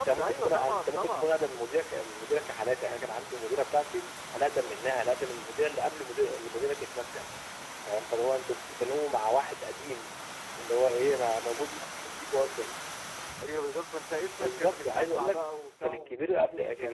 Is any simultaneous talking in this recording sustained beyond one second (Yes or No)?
Yes